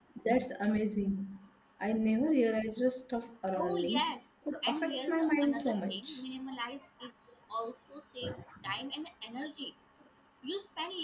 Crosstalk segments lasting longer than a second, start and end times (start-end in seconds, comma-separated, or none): 4.6-6.2